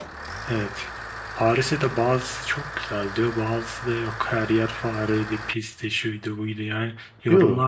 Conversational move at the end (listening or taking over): listening